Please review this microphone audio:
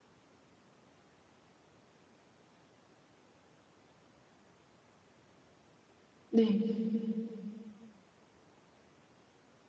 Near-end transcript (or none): 네.